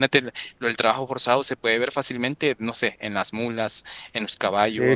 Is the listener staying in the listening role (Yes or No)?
No